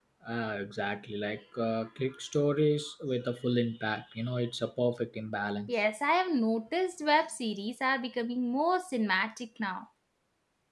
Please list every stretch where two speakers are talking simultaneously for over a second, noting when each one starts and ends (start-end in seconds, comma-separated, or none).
none